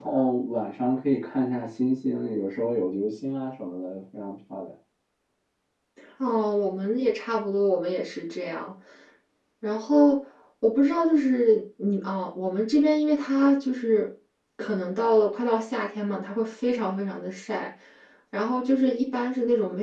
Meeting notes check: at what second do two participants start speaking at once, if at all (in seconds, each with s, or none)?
none